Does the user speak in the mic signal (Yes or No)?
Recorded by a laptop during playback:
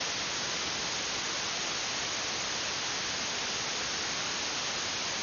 No